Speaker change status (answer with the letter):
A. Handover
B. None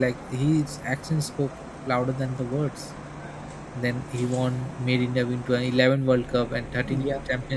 B